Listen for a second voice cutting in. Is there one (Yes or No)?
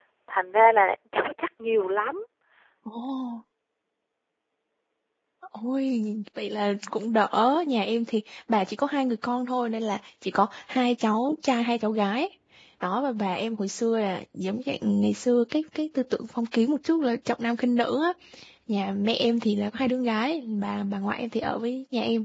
No